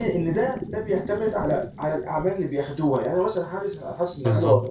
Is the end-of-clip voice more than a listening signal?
No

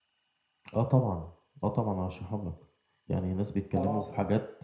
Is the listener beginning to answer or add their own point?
No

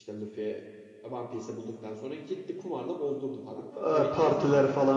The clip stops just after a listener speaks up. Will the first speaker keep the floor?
No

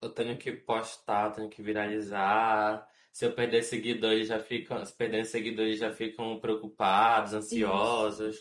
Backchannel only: No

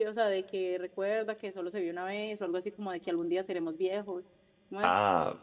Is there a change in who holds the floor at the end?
Yes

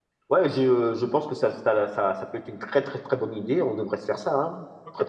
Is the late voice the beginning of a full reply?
Yes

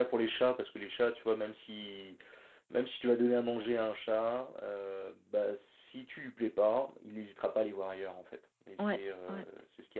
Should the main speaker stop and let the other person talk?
No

